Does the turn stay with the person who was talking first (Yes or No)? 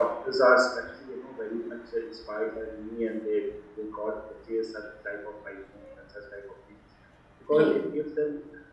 Yes